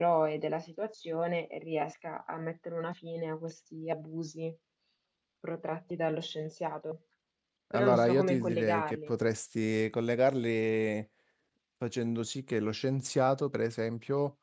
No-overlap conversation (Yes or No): No